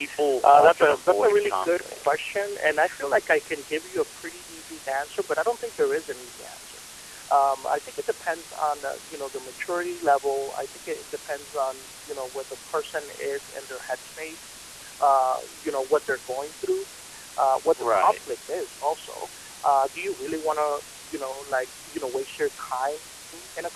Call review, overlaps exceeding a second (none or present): present